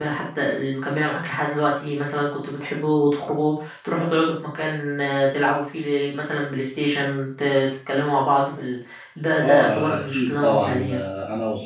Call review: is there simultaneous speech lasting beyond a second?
Yes, from 9.4 s

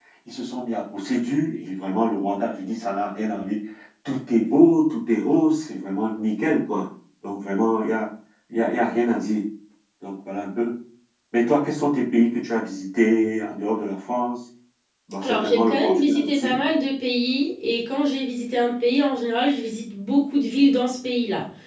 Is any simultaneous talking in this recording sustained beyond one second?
Yes, from 15.2 s

